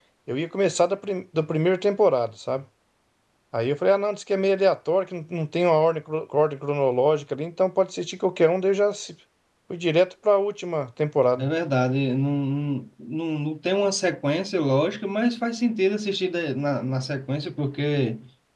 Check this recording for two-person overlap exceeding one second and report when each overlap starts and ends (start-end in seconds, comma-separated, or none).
none